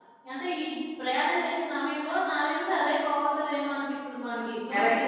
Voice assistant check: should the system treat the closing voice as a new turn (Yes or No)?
Yes